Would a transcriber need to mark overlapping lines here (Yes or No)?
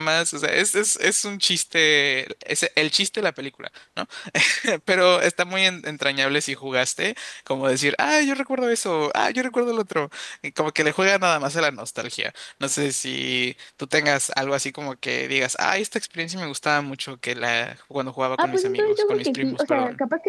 Yes